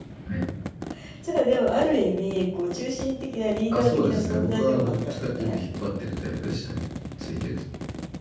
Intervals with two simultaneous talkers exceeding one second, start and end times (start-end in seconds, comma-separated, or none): 3.7-5.6